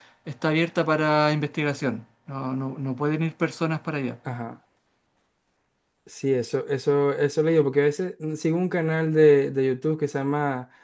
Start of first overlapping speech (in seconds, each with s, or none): none